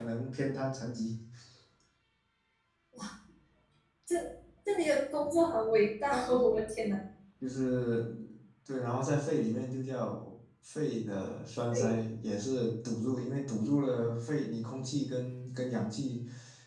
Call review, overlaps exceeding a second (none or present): none